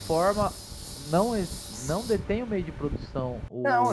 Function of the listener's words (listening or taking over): taking over